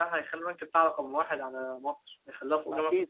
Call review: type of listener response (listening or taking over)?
taking over